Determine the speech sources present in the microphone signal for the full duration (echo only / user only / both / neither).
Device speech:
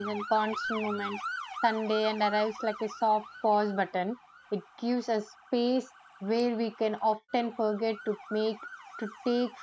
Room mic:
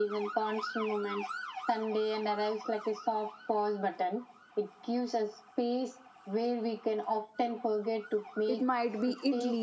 both